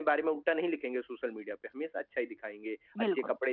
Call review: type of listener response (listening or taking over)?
listening